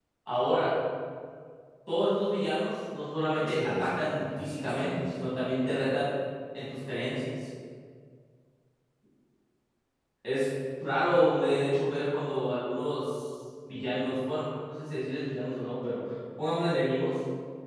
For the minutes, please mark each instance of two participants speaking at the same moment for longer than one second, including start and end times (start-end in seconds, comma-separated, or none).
3.5-5.3